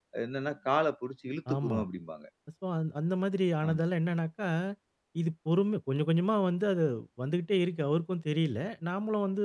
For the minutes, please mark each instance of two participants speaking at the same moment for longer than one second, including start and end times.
none

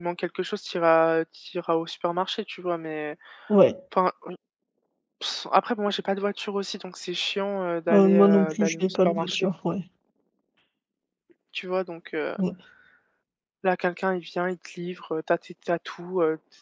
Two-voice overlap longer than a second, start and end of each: 7.9-9.5

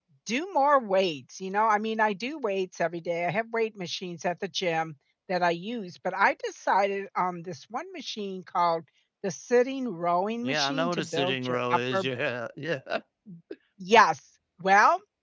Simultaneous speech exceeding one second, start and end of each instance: 10.4-12.0

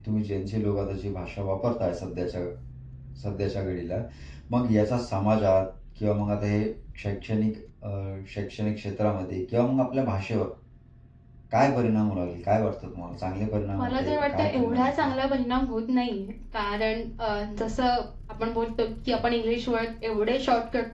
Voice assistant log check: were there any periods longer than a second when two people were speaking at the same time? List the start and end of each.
13.8-15.1

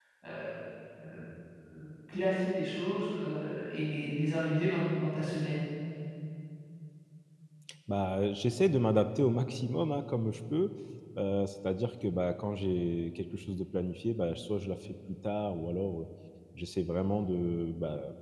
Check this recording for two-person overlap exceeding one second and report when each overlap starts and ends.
none

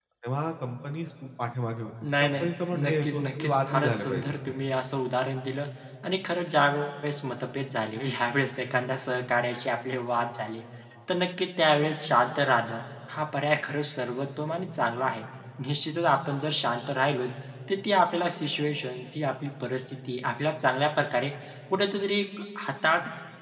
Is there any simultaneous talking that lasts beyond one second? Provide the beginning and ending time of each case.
2.8-4.3

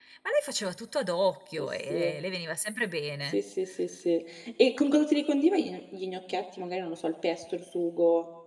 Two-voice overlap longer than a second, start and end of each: none

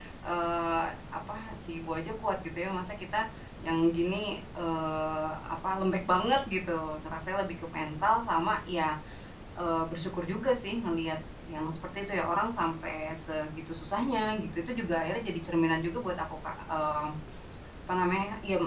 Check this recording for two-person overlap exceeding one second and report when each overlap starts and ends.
none

